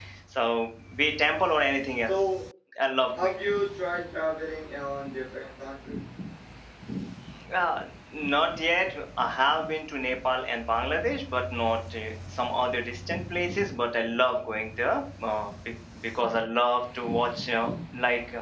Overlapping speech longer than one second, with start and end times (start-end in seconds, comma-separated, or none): none